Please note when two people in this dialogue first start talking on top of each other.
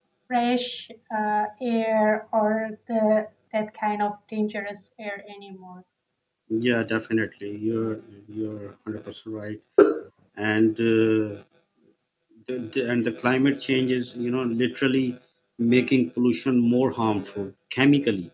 none

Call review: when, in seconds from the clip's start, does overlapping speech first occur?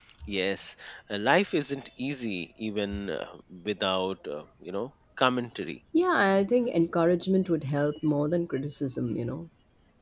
none

